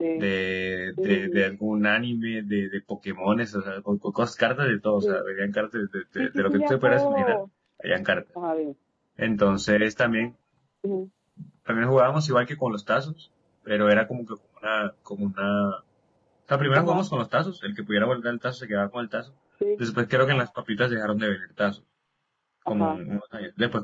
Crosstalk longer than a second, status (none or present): present